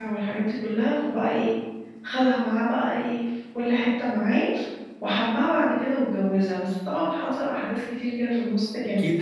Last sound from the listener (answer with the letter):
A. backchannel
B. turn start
B